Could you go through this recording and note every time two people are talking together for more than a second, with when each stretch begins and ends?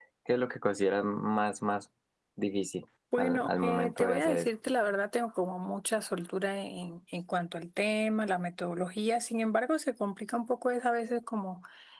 3.2-4.5

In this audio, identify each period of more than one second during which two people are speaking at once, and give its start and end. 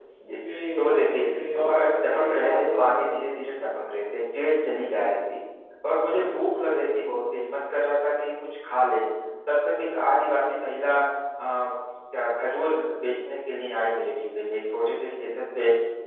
1.7-3.1

